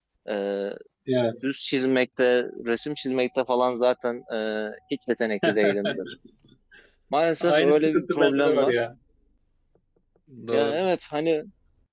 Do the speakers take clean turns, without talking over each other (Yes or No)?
No